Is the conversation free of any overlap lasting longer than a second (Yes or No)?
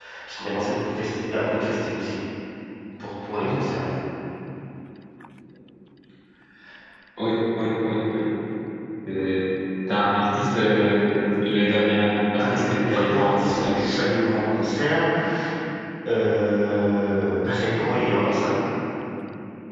No